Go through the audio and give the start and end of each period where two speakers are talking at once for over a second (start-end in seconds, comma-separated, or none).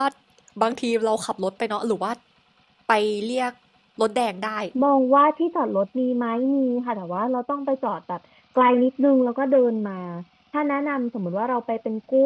none